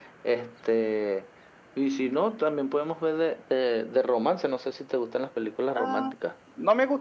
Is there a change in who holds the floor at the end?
Yes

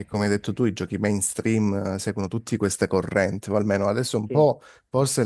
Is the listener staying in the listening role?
Yes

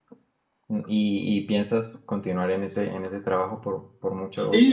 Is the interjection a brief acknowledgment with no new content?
No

